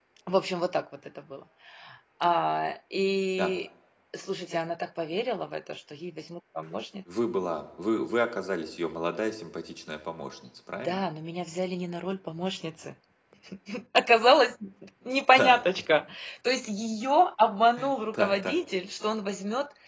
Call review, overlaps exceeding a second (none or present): none